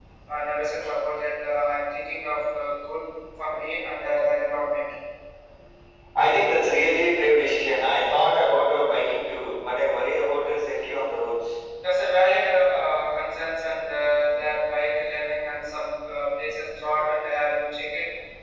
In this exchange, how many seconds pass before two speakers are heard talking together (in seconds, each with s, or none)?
none